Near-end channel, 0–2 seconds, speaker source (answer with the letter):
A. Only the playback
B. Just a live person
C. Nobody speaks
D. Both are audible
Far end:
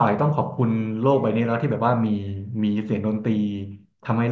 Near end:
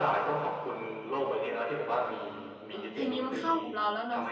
A